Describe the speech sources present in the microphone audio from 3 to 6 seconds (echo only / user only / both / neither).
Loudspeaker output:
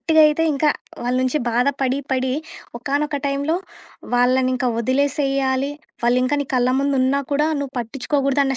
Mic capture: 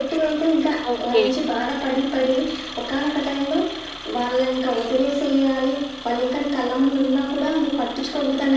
echo only